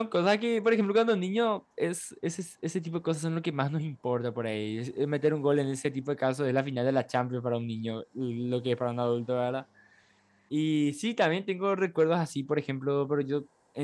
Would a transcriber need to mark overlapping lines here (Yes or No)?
No